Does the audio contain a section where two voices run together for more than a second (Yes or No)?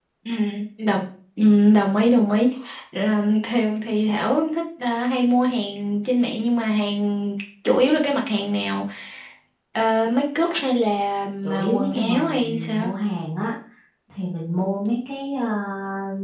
Yes